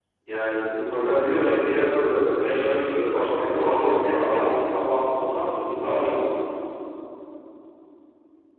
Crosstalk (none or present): present